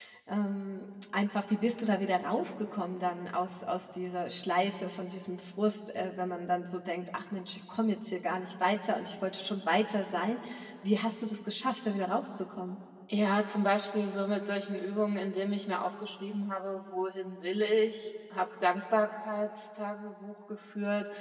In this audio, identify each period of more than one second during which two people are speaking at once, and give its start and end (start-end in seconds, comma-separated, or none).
none